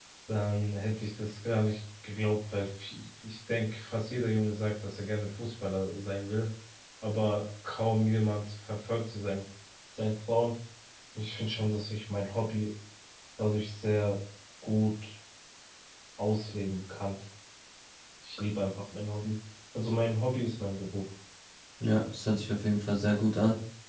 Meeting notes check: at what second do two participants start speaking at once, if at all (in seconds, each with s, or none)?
none